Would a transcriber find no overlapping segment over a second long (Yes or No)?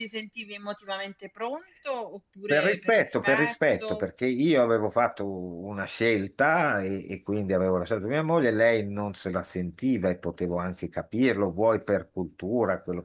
No